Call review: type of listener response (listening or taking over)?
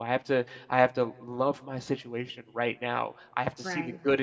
listening